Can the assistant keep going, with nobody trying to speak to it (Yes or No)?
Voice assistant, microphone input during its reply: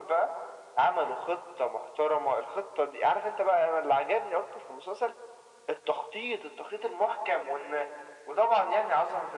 Yes